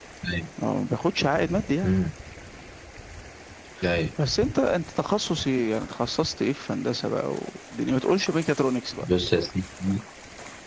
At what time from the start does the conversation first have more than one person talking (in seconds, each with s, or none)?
none